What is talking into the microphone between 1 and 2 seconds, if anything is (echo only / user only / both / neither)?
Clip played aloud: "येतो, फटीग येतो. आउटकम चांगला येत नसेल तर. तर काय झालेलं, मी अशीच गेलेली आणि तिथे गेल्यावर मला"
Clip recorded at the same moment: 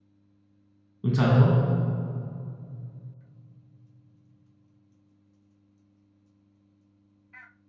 user only